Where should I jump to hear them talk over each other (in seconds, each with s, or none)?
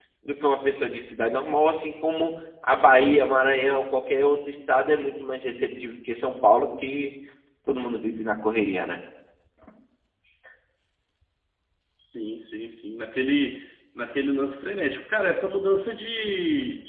none